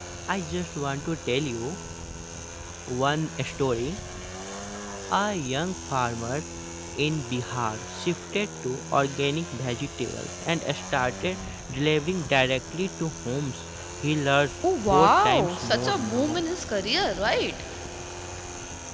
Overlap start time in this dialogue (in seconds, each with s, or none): 14.6 s